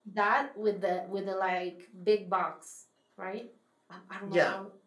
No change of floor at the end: No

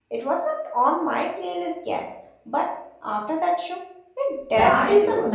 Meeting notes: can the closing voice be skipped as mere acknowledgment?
No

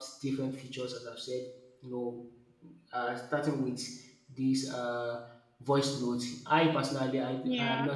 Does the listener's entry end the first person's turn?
No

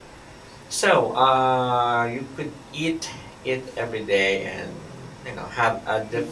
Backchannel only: No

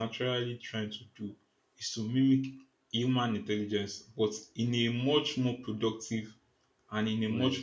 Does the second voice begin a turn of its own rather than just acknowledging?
No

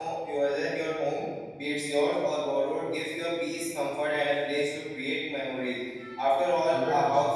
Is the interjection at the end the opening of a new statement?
No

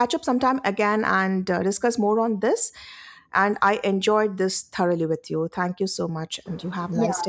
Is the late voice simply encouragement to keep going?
No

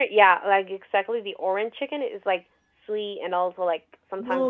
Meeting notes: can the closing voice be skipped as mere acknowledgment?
No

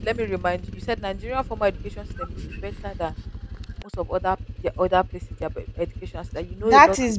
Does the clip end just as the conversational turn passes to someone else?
Yes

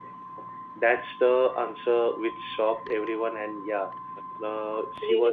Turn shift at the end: No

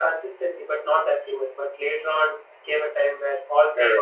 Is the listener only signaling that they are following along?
No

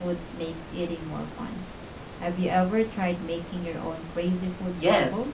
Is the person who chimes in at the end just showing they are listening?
No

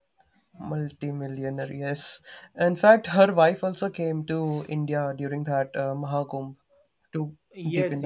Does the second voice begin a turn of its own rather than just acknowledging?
Yes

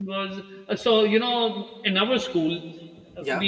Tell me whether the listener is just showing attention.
Yes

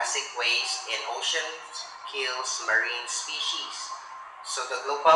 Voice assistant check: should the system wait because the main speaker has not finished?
Yes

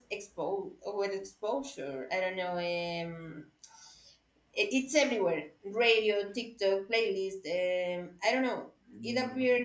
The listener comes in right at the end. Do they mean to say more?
No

